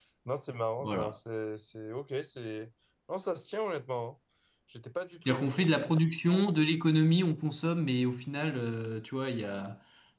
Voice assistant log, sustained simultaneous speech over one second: none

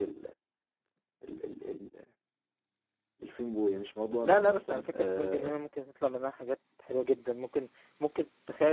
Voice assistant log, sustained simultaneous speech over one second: present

